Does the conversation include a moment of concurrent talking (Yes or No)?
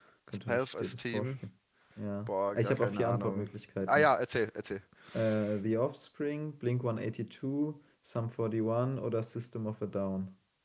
Yes